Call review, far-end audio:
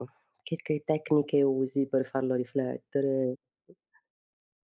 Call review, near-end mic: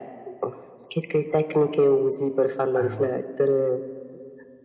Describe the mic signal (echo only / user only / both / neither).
both